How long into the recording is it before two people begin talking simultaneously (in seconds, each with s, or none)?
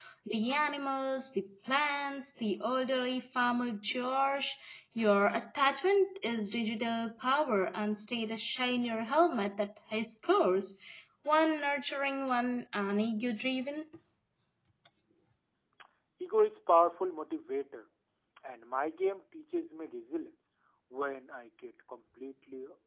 none